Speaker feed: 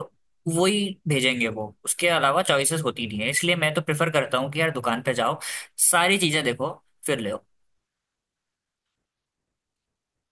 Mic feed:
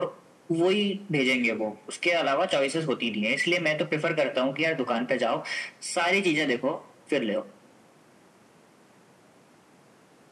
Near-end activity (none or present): none